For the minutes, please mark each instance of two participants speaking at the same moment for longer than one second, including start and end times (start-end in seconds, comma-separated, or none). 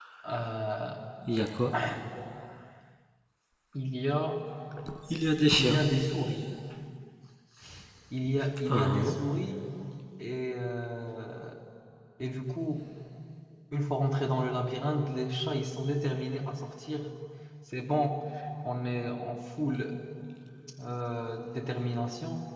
none